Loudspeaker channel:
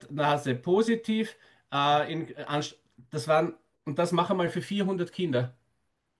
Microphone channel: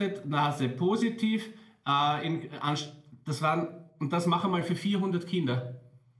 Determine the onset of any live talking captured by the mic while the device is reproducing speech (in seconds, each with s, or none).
none